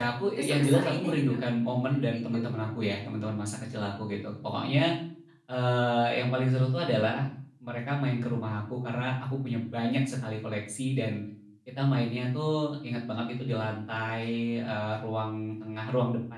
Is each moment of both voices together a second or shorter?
No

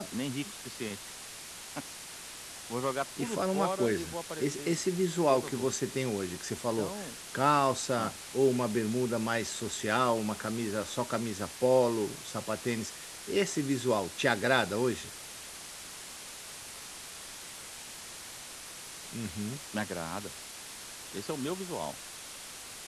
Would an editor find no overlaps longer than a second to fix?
No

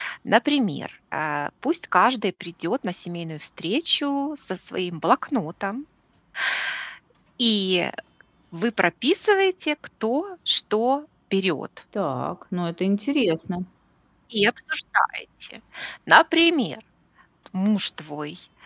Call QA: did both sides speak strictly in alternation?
Yes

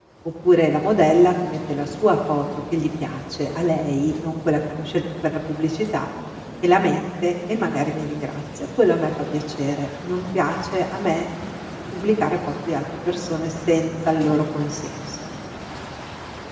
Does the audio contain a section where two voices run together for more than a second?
No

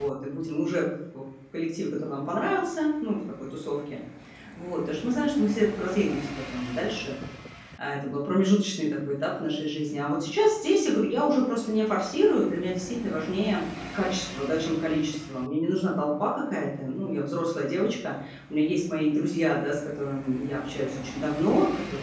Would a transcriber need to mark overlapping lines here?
No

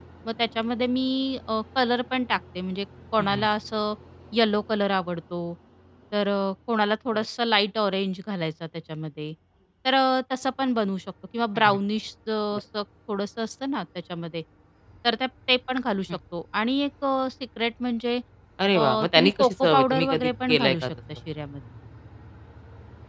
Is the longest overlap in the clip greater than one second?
Yes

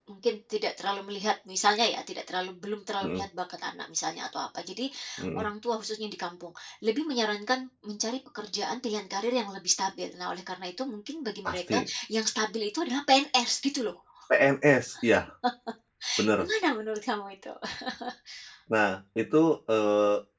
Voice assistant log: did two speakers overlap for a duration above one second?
No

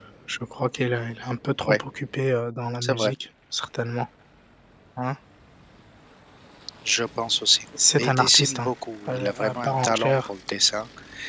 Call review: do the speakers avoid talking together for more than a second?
No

